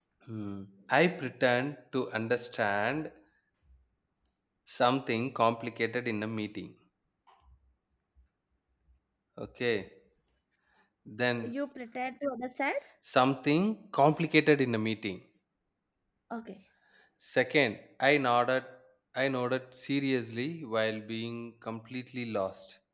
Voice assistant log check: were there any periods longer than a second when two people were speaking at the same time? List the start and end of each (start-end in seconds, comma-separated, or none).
none